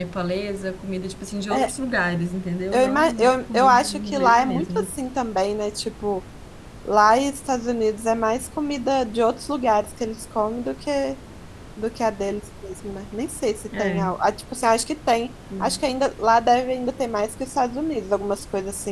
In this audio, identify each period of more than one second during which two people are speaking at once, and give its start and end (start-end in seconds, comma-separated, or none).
2.7-4.9